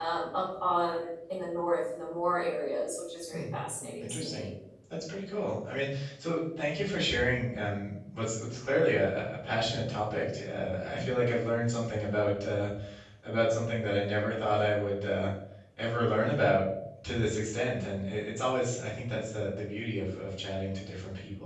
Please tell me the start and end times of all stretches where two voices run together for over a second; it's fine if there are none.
none

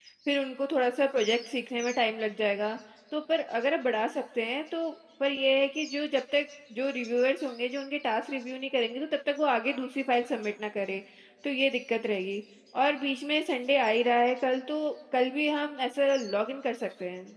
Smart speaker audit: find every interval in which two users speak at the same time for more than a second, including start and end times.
none

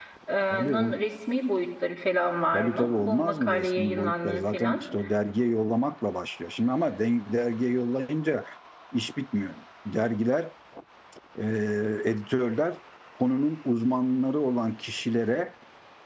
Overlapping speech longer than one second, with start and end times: 2.5-4.8

